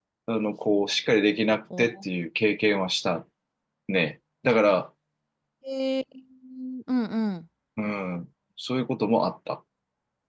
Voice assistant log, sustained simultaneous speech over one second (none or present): none